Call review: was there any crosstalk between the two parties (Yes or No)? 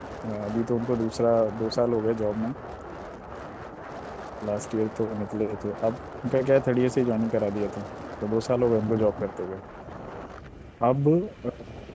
No